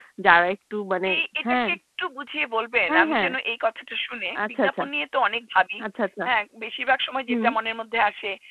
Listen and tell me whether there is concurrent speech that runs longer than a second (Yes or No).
No